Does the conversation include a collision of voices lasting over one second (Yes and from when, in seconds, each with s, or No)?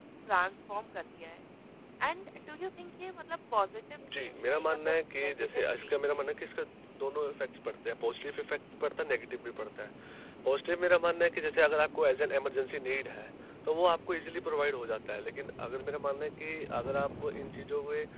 Yes, from 4.0 s